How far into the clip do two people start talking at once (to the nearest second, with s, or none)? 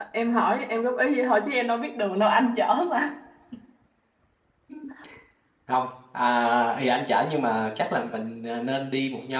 none